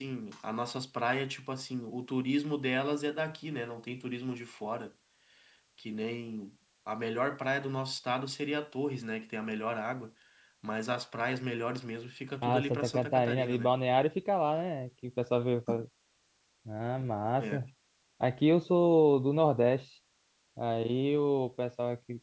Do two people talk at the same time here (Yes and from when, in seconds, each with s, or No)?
Yes, from 12.4 s